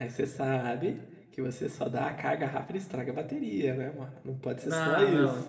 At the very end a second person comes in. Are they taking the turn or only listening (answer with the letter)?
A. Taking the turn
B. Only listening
A